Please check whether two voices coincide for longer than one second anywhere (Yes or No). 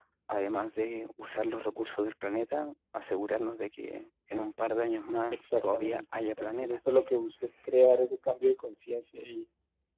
Yes